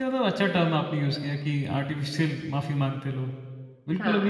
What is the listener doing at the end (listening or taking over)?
listening